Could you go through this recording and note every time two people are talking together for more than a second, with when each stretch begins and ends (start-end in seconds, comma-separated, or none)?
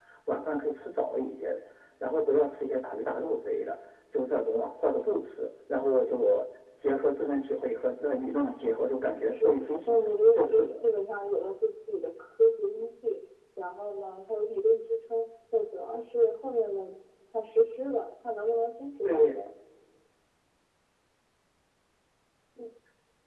9.2-10.8